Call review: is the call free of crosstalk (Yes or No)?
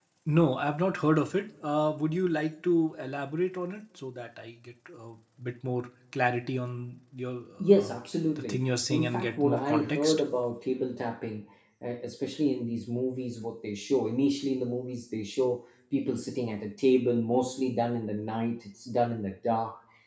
No